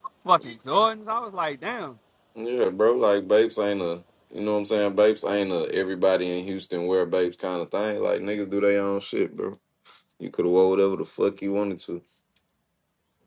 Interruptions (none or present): none